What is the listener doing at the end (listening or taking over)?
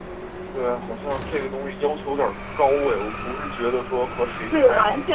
taking over